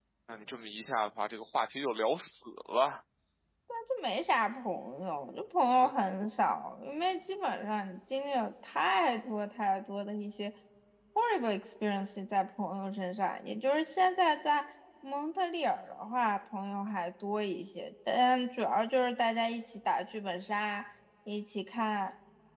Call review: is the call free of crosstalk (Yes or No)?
Yes